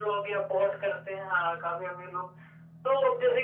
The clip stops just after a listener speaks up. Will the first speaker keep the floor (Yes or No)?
Yes